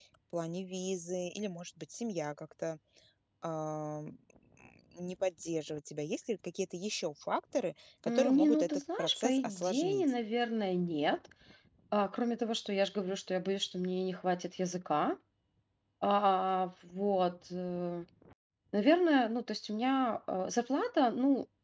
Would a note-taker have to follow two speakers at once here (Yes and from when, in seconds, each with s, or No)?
Yes, from 8.0 s